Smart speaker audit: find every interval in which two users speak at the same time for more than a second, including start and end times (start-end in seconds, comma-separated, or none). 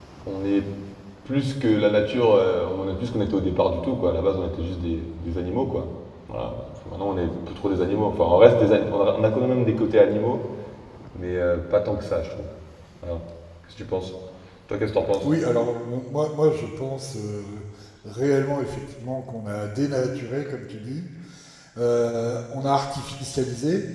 none